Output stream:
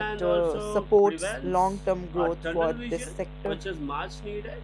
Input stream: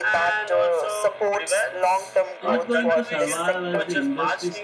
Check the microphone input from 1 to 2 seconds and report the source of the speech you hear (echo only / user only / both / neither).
echo only